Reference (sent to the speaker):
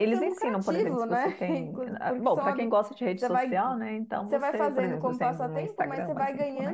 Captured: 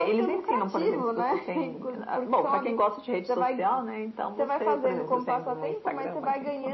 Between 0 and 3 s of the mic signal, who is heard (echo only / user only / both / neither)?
echo only